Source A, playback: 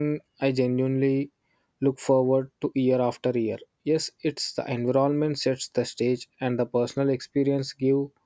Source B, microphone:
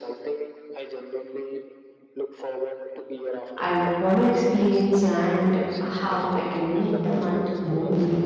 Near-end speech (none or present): present